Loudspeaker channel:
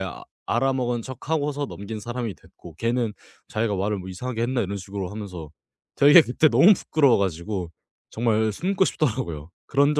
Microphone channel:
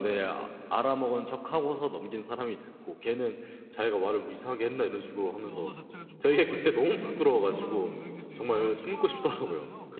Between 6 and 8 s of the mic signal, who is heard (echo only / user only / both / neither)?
both